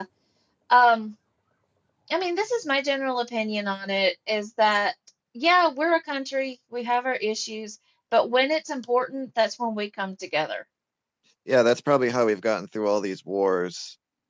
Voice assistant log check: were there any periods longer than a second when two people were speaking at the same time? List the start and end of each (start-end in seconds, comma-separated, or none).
none